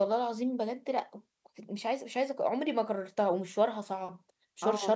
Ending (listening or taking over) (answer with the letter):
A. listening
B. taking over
A